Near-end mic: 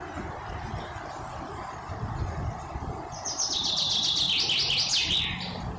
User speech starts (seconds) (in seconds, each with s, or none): none